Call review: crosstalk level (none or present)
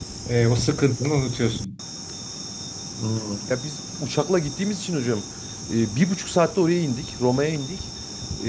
none